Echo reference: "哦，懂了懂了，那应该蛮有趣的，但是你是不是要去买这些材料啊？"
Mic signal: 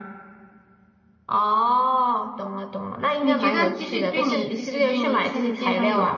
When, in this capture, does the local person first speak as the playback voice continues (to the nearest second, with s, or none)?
3 s